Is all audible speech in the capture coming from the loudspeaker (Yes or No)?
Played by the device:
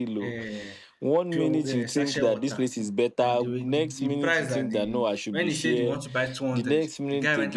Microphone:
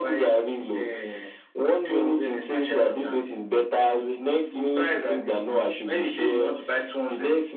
Yes